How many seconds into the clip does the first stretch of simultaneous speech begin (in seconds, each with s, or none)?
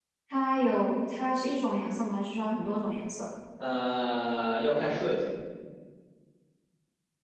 none